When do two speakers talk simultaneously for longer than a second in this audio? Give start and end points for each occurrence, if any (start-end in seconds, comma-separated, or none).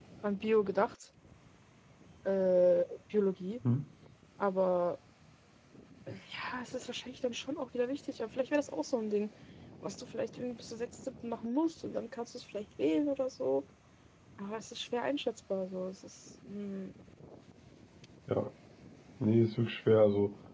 none